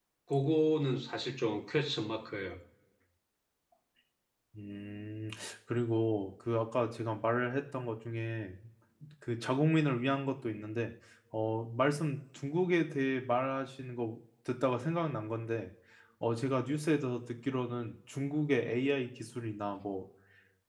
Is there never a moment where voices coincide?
Yes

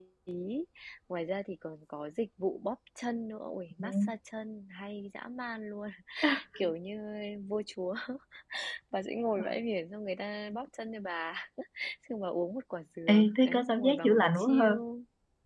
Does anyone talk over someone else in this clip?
Yes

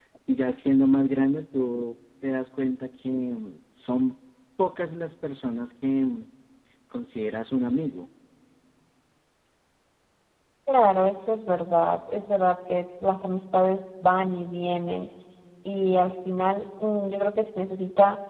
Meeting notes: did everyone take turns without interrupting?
Yes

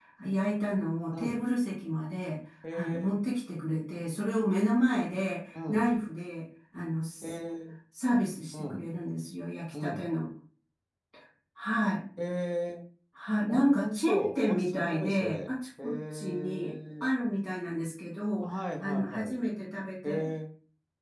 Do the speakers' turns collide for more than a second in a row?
Yes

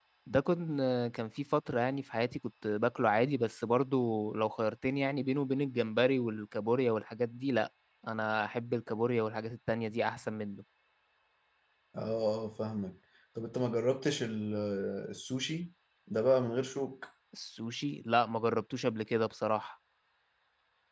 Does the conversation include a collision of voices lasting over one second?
No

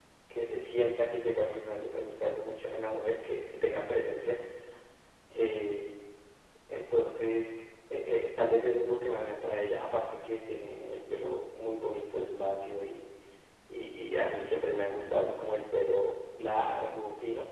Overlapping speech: No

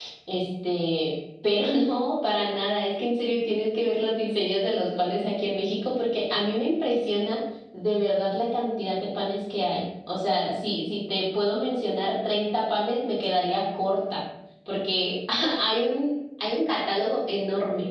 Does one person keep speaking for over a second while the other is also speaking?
No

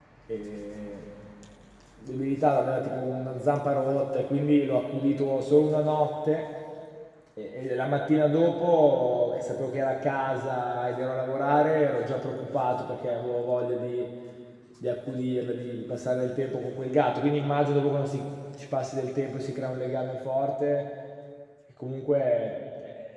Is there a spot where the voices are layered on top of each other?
No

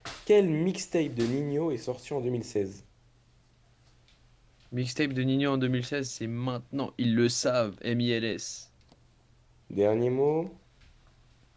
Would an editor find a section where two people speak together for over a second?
No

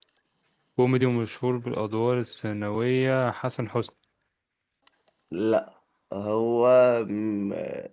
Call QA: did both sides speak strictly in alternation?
Yes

